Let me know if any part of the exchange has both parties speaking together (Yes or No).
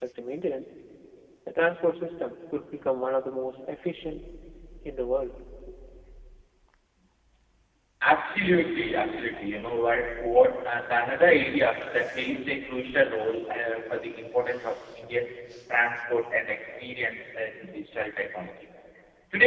No